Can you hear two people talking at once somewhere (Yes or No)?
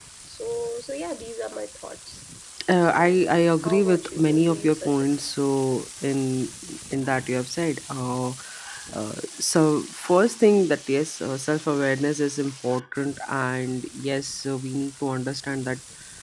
Yes